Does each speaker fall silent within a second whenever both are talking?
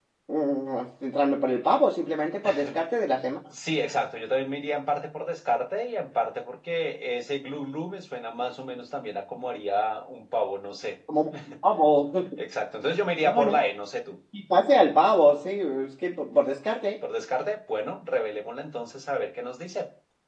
Yes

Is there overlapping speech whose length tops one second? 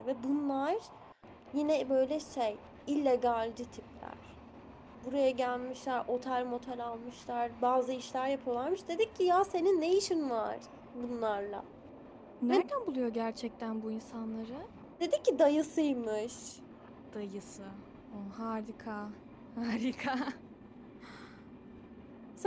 No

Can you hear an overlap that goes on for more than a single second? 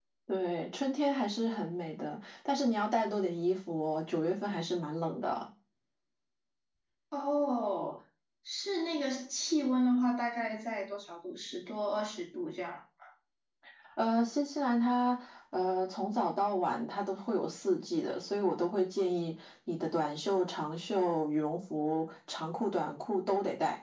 No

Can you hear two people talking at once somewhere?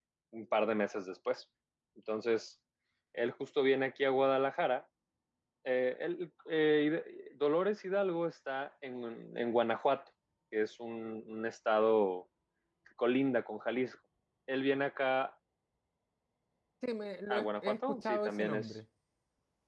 Yes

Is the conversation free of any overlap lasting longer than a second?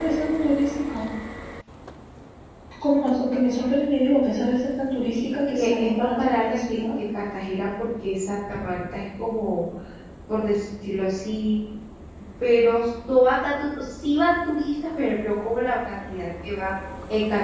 No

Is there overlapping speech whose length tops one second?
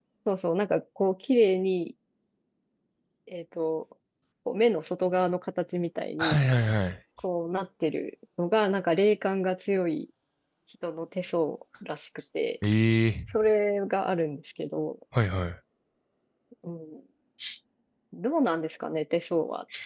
No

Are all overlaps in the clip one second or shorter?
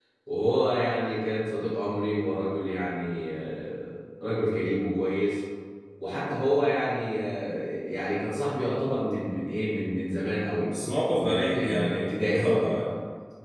No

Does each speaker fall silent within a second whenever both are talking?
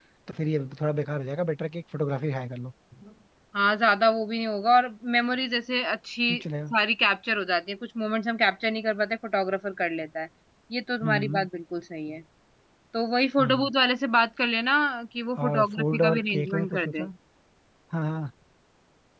No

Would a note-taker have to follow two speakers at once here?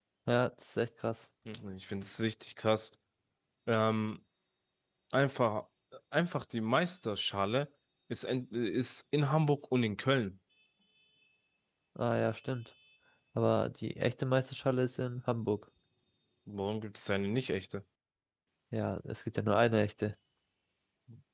No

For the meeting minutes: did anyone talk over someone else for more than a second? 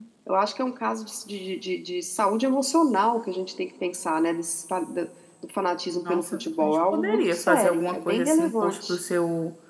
Yes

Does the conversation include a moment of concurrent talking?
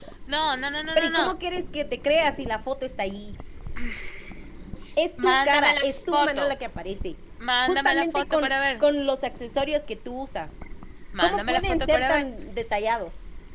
Yes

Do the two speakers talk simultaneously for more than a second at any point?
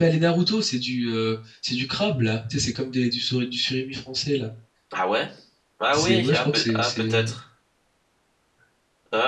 Yes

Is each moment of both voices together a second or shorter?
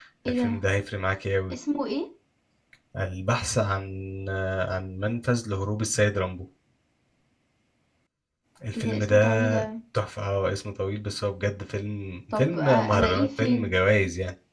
No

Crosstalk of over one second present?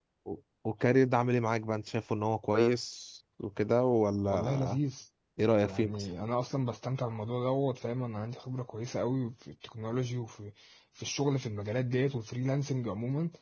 No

